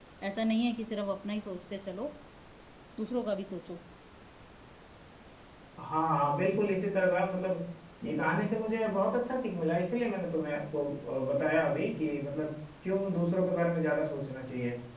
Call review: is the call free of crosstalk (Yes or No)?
Yes